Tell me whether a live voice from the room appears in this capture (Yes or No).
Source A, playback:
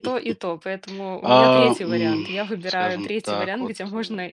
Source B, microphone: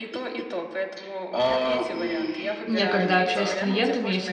Yes